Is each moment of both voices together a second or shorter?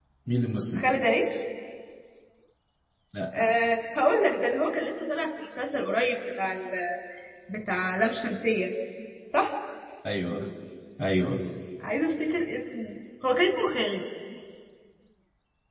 Yes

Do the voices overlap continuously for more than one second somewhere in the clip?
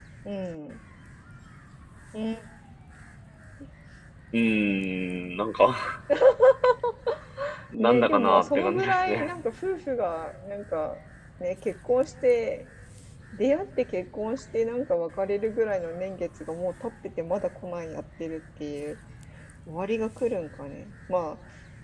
Yes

